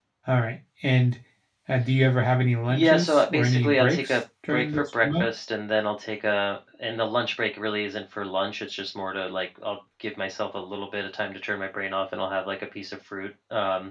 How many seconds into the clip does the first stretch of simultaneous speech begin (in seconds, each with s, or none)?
2.7 s